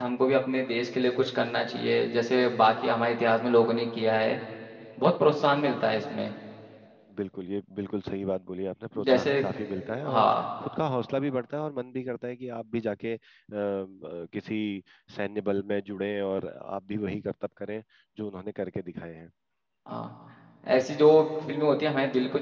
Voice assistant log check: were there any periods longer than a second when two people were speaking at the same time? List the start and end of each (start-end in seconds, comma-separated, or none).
none